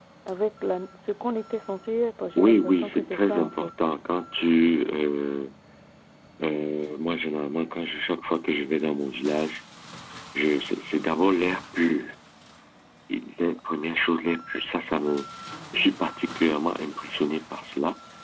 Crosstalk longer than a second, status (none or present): present